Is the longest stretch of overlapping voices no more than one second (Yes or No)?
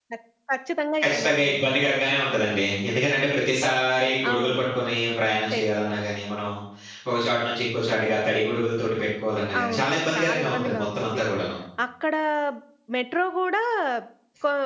No